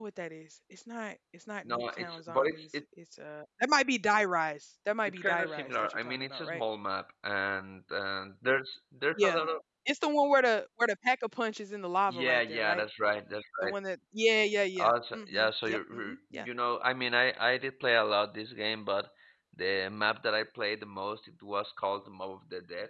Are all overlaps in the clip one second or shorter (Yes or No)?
No